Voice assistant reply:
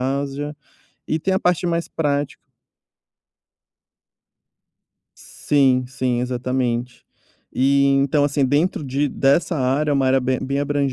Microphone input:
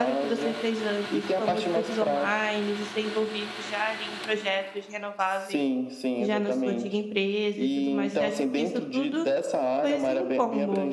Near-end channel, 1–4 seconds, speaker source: both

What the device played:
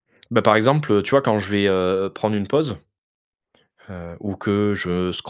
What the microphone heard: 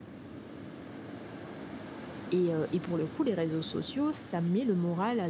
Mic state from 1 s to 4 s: user only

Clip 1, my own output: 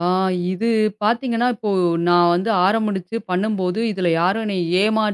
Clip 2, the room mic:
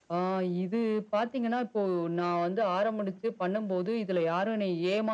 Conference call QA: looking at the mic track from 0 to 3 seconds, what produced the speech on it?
echo only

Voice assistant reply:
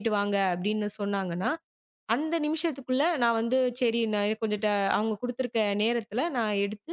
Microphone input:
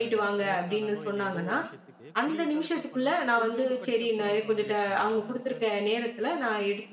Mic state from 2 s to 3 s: both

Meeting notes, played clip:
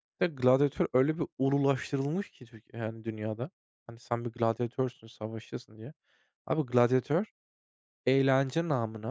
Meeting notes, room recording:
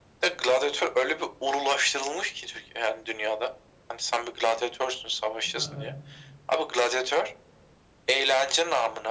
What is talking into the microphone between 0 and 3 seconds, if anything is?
echo only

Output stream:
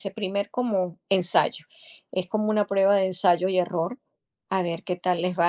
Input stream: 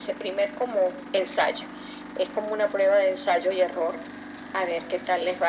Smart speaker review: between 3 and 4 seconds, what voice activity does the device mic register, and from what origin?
echo only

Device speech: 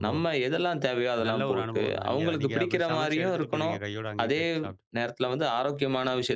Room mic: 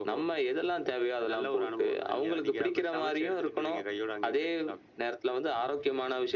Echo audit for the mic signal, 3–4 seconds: echo only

